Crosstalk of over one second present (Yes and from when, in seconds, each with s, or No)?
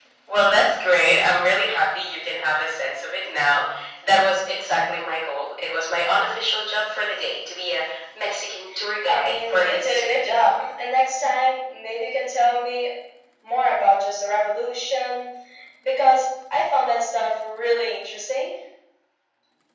Yes, from 9.0 s